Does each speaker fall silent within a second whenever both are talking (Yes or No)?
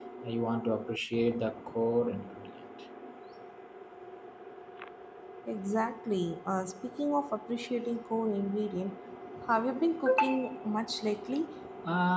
Yes